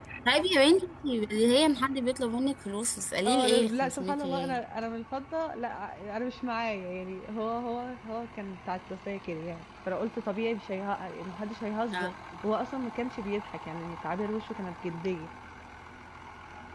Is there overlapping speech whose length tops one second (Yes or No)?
Yes